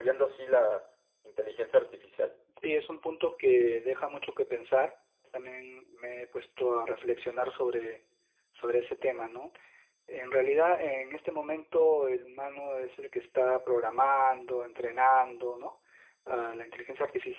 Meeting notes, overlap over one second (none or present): none